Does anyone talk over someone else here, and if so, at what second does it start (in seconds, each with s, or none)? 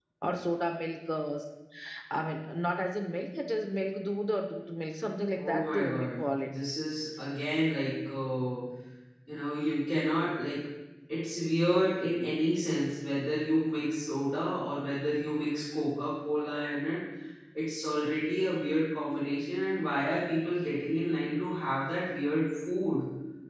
5.3 s